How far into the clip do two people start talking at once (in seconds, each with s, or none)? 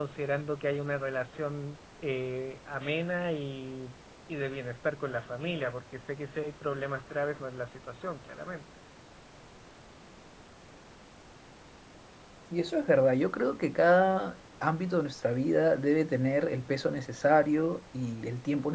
none